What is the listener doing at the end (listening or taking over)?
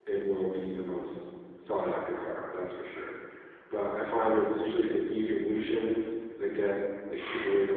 listening